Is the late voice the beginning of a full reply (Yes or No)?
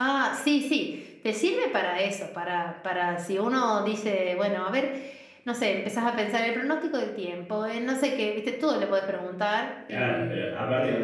Yes